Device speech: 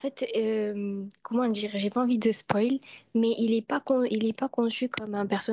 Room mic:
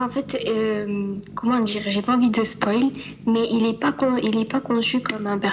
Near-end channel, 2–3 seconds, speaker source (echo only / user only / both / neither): echo only